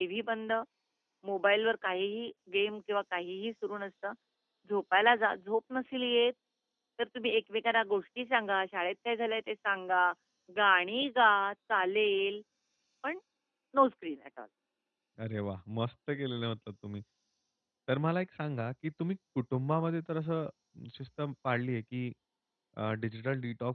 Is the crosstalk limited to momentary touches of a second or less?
Yes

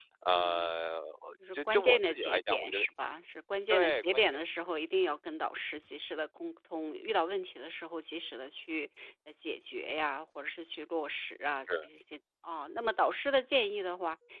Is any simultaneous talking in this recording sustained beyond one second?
Yes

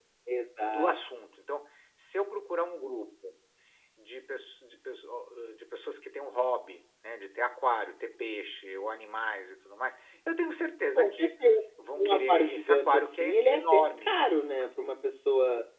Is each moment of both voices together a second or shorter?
No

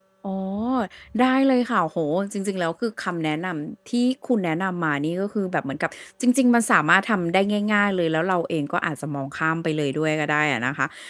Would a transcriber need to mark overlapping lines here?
No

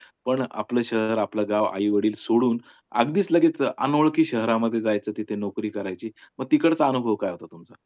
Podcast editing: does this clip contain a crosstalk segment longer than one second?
No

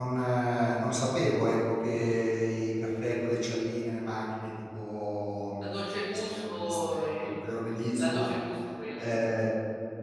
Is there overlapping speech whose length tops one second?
Yes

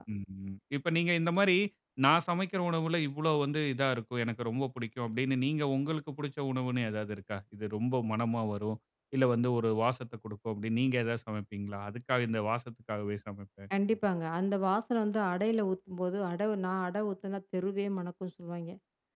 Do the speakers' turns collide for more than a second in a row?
No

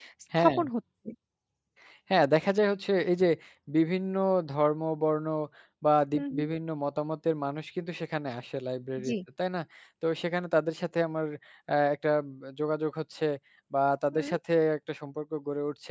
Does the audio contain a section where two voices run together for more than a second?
No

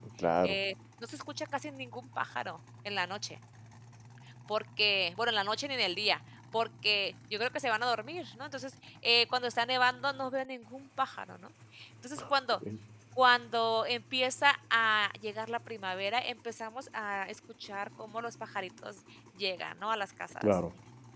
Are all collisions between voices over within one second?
Yes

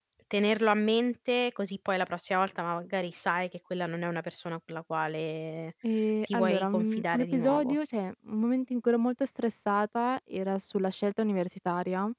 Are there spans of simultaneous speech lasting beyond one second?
Yes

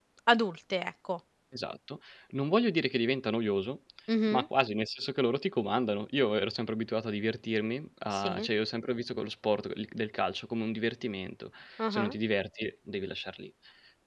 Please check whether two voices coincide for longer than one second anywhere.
No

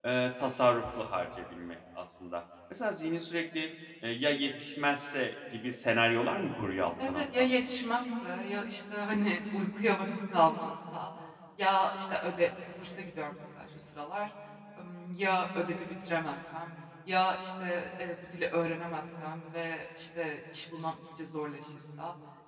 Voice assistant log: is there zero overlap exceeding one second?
Yes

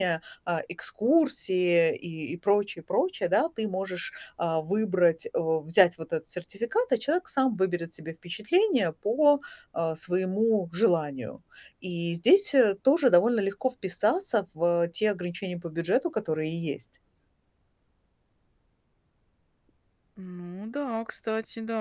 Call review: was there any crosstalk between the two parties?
No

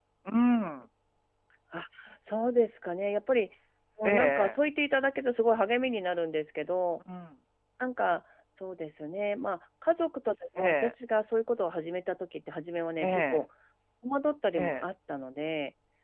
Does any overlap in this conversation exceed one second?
No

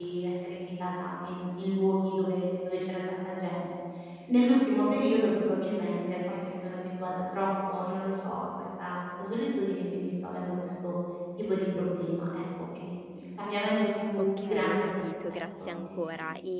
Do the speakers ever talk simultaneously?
Yes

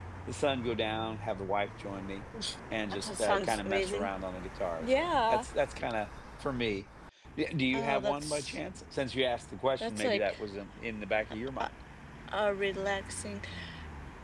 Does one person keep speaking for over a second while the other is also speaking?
Yes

